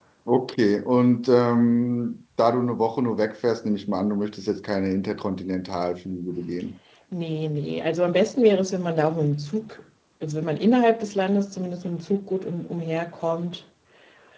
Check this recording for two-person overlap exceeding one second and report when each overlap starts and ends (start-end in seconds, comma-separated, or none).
none